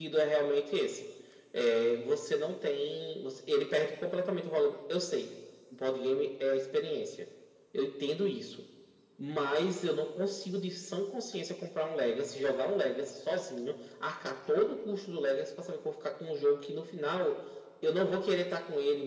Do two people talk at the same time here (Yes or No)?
No